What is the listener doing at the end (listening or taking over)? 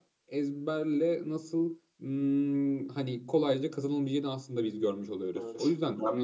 taking over